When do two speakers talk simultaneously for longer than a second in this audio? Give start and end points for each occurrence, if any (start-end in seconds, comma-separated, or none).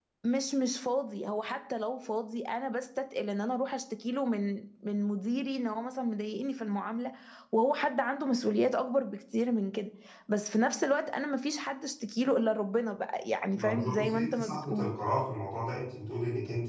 13.5-14.9